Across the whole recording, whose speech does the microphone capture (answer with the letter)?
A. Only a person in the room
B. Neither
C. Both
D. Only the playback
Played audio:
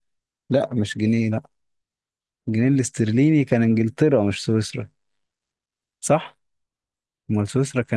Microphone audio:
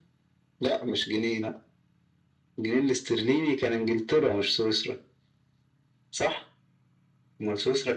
D